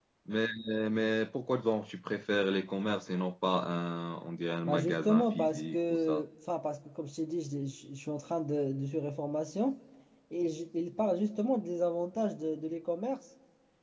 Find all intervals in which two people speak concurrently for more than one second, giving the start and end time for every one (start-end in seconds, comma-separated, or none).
4.7-6.2